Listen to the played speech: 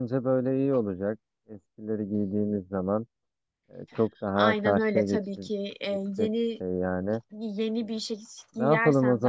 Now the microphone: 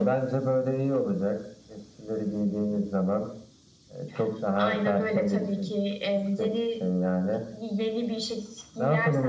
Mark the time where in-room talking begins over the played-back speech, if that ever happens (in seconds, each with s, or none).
none